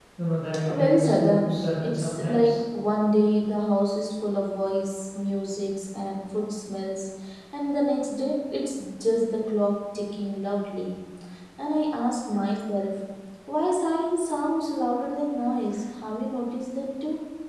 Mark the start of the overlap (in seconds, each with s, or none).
0.8 s